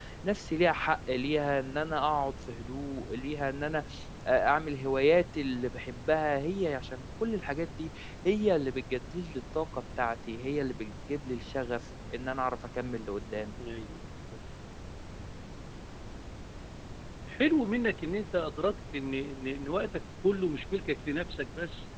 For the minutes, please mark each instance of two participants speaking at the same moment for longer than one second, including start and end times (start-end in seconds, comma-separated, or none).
none